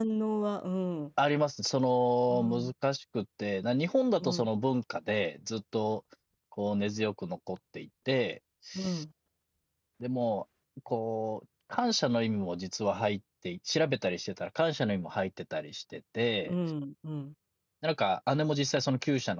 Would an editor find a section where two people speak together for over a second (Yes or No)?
No